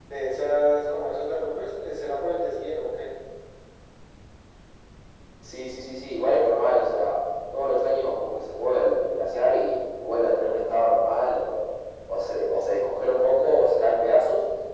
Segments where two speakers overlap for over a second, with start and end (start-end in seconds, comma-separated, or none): none